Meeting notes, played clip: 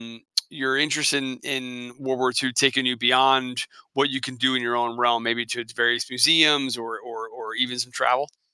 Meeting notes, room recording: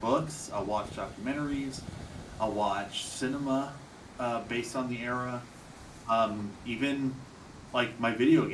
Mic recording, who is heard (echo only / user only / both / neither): user only